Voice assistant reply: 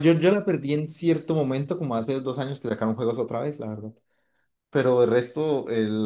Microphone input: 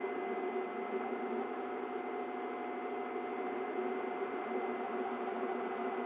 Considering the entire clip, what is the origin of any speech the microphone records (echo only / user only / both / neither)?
neither